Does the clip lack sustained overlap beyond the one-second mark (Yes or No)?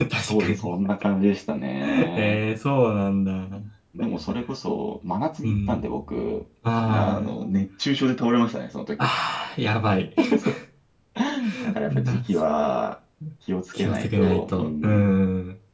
No